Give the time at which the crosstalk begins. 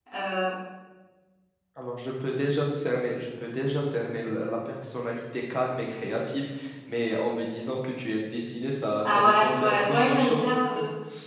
9.0 s

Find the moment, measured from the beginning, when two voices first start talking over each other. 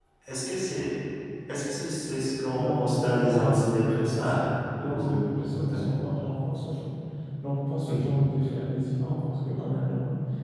2.6 s

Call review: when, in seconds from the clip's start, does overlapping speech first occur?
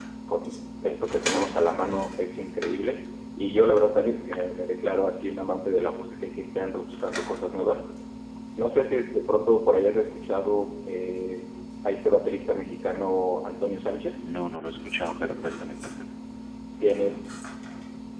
none

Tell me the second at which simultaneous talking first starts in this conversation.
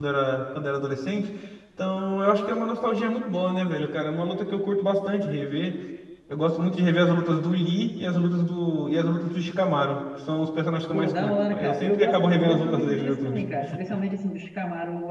10.9 s

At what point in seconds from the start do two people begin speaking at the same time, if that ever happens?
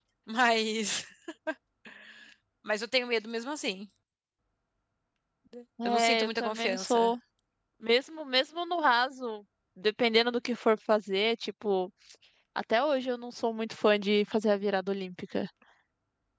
5.8 s

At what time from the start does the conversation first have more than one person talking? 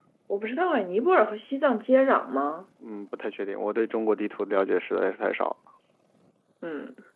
none

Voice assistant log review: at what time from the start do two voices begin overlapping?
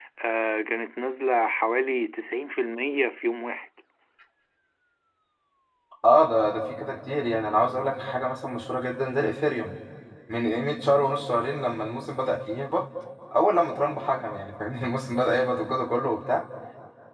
none

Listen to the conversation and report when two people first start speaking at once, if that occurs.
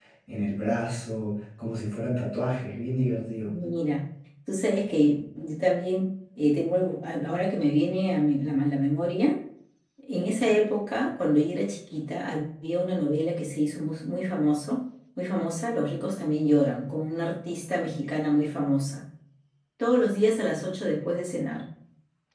none

